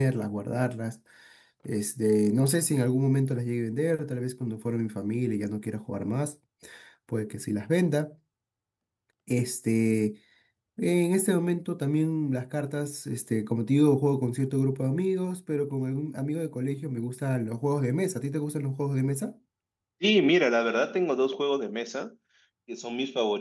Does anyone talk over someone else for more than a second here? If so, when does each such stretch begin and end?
none

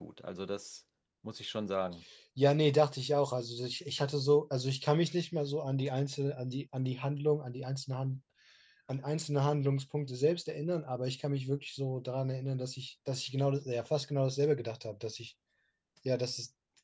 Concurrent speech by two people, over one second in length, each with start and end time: none

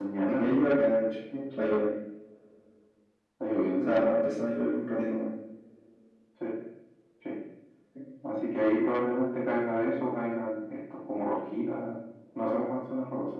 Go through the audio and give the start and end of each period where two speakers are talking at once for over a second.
none

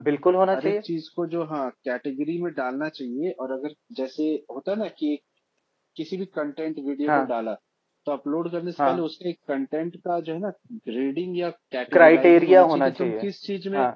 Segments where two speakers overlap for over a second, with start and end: 11.9-13.2

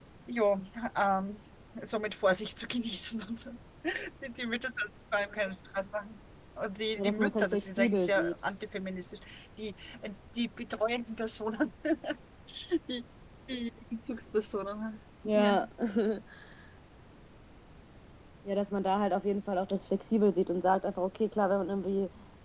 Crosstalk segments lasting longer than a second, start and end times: 7.0-8.3

